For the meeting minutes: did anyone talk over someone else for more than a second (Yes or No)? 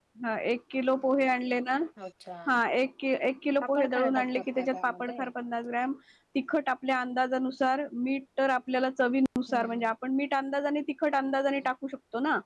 Yes